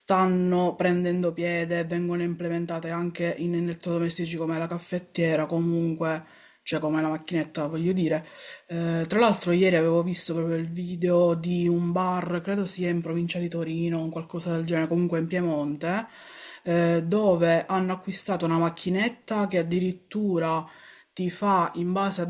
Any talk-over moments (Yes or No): No